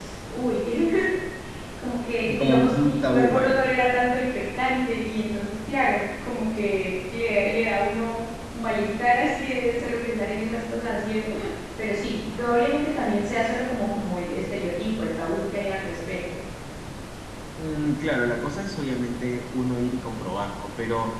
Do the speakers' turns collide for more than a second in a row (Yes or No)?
Yes